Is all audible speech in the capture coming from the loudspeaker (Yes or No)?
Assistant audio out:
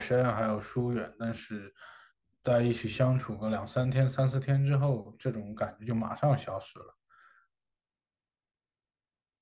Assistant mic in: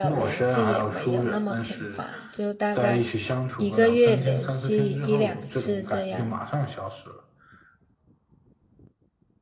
No